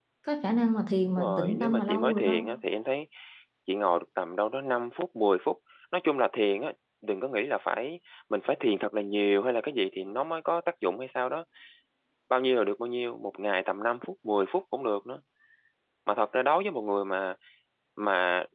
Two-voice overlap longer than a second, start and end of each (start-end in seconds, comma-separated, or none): 1.2-2.4